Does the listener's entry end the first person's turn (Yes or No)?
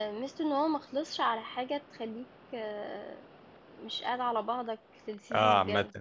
Yes